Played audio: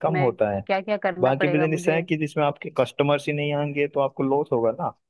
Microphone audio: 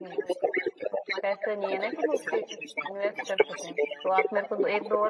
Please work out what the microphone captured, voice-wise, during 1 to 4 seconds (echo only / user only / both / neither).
both